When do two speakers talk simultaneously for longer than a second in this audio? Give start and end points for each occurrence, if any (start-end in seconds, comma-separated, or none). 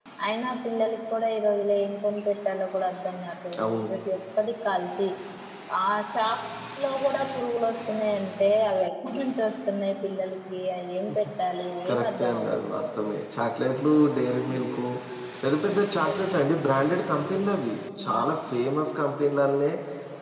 11.9-13.1